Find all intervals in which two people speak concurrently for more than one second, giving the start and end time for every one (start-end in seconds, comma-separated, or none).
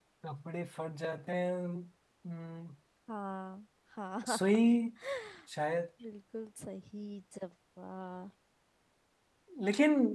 none